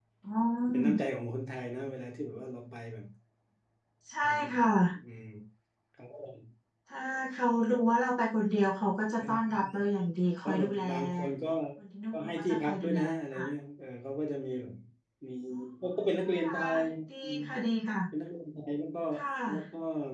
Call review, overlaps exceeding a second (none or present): present